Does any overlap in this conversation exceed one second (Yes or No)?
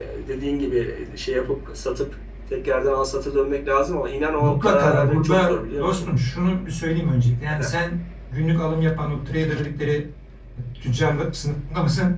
Yes